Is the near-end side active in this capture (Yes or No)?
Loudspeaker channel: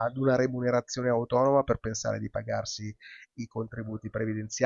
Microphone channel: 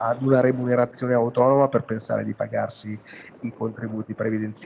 No